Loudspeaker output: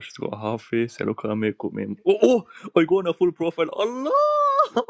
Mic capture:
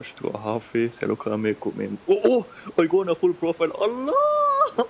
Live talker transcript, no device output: none

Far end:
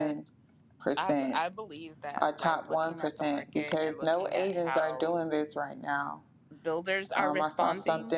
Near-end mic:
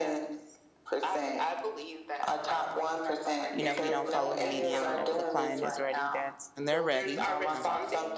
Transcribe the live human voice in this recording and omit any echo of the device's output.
you know, we don't follow the media whenever the client is ready. That's when they're ready. Um,

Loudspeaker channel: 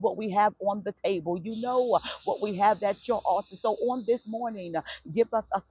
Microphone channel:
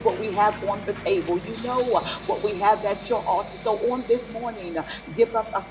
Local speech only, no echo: none

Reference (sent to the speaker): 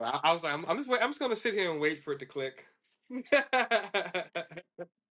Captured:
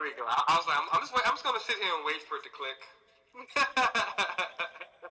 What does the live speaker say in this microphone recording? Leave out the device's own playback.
none

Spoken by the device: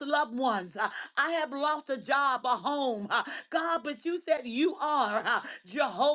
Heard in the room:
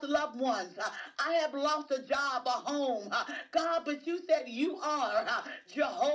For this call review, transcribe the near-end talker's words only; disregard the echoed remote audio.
none

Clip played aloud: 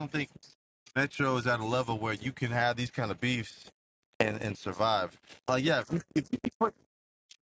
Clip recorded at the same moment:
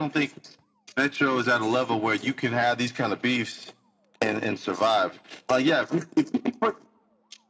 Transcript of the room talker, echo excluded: none

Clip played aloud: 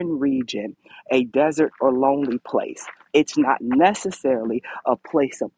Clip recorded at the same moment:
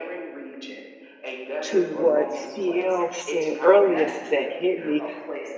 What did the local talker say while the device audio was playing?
to what cl said earlier that hit me

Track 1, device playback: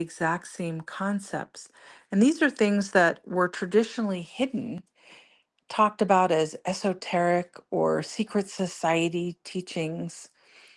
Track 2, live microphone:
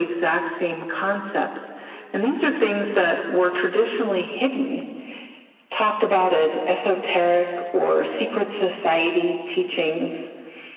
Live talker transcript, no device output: none

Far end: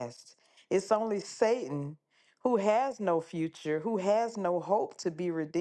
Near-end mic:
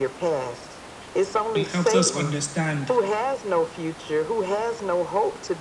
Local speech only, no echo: and helps us understand

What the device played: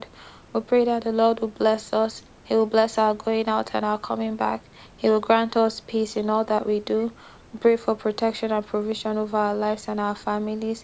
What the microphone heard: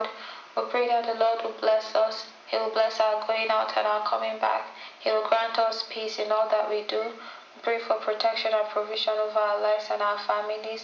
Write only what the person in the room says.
none

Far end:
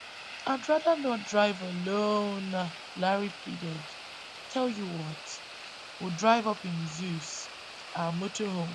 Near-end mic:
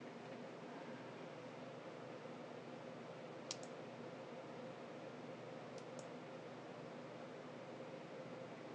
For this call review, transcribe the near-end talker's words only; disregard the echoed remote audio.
none

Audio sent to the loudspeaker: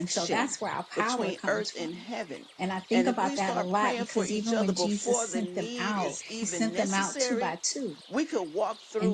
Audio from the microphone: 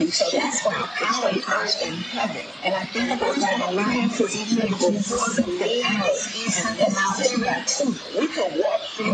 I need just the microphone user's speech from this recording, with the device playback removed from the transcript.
none

